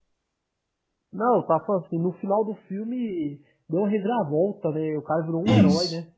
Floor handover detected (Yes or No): Yes